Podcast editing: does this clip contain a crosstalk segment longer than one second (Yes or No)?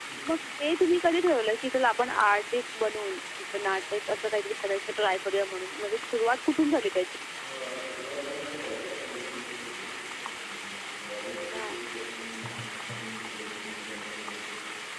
No